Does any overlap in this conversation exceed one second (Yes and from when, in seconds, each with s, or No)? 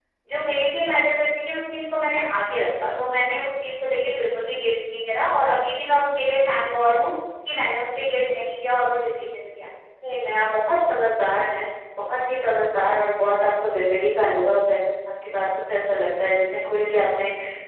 No